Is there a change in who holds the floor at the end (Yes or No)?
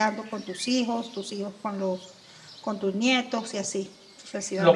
Yes